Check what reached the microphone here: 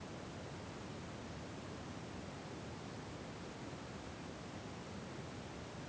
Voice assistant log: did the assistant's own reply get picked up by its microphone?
No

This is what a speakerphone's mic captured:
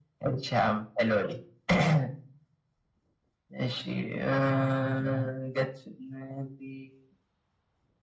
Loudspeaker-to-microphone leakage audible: Yes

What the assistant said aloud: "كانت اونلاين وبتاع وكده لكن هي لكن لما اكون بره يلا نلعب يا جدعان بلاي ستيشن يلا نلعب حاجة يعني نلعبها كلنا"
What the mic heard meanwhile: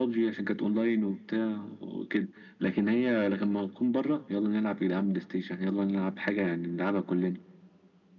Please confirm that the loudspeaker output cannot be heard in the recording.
No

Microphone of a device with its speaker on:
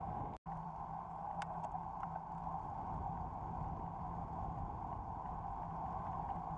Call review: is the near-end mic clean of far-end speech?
Yes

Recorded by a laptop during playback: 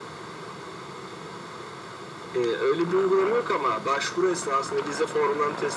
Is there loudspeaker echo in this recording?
Yes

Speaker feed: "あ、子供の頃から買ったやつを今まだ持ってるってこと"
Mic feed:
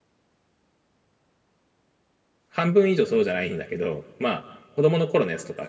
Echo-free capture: Yes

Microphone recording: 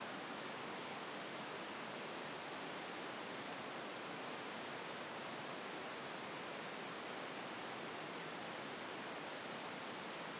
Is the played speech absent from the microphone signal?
Yes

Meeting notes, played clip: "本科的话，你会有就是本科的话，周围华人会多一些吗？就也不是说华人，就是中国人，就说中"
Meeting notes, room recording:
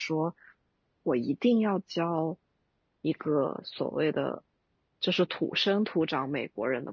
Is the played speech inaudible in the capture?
Yes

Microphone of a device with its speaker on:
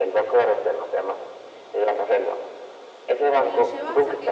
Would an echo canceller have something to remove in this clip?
Yes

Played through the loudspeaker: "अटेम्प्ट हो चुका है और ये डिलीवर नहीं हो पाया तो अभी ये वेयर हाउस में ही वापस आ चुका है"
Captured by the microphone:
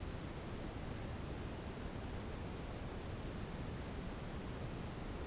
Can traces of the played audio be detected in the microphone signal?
No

